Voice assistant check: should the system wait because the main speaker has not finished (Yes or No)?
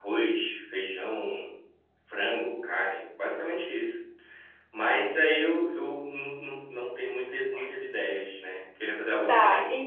No